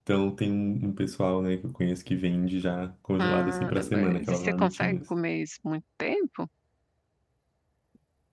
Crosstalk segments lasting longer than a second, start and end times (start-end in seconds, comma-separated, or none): 3.2-5.0